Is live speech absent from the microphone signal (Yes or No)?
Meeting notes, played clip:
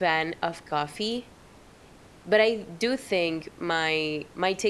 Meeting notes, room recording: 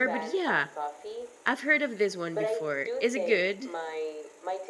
No